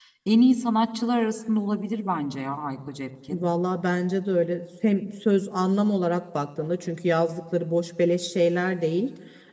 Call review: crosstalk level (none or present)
none